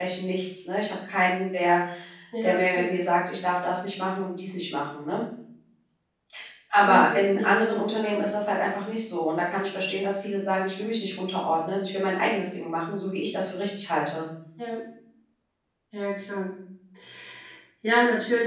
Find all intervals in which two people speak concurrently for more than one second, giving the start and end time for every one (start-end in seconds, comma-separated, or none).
6.8-8.2